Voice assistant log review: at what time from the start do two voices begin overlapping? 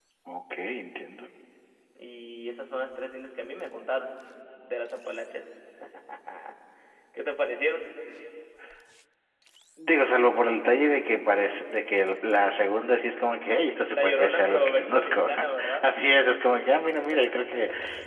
14 s

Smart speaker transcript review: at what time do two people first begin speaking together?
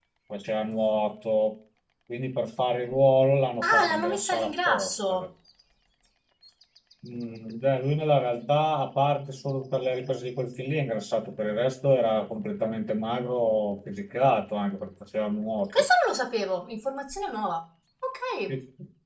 4 s

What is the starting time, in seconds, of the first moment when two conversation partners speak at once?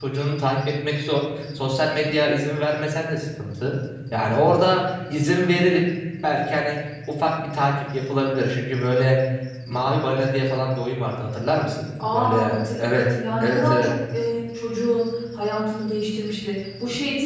12 s

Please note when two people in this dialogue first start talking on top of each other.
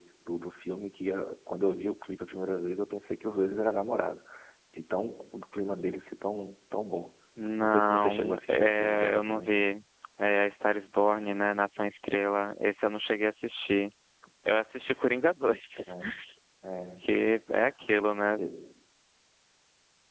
8 s

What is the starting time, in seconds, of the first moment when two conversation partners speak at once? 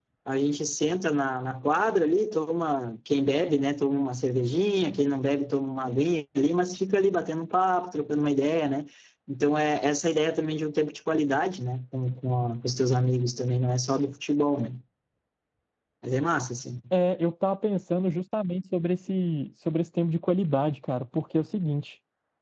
none

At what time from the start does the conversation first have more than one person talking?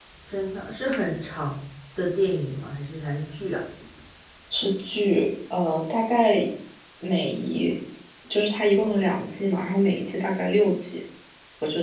none

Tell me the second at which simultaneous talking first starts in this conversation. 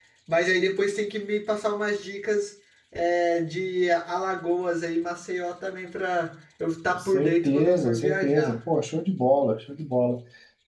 7 s

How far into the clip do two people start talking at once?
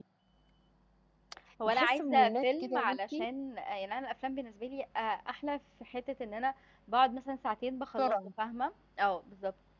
2 s

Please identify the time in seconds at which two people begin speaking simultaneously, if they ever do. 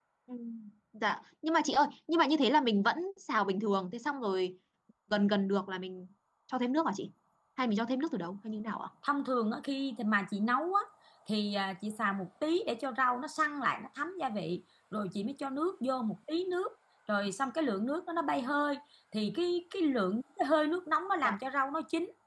none

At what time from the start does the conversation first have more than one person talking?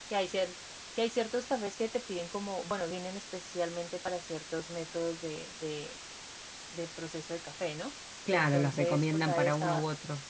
8 s

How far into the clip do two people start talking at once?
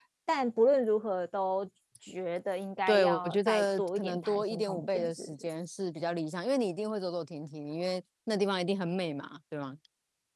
3 s

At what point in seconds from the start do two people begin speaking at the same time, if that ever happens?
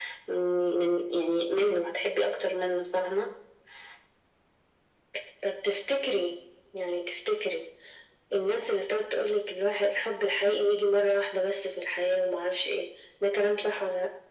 none

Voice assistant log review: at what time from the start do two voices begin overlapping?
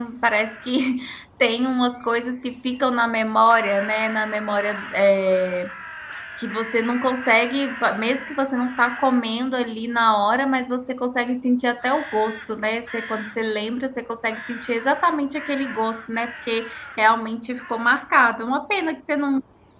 none

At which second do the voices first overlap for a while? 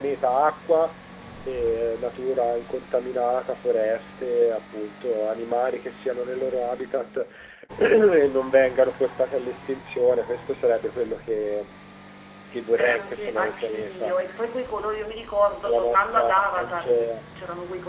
13 s

